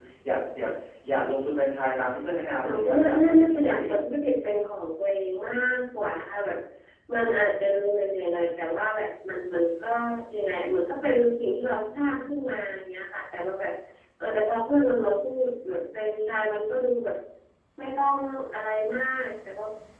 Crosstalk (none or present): present